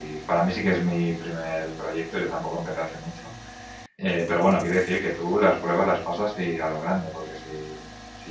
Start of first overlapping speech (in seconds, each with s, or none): none